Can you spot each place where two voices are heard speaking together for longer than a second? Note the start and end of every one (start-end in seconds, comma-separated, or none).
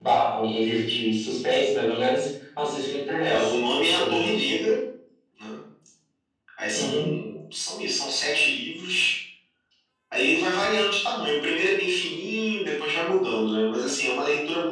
3.3-4.6